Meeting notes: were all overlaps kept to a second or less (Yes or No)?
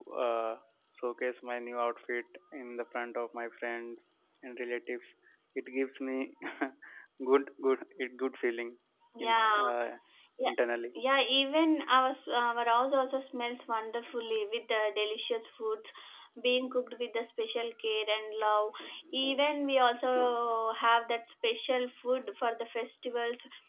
Yes